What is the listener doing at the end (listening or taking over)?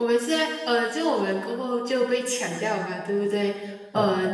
listening